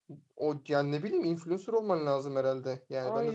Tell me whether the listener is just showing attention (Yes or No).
No